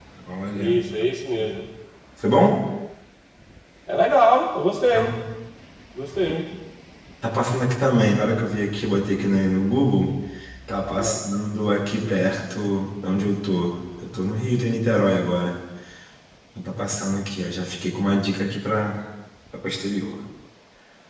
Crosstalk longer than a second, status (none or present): none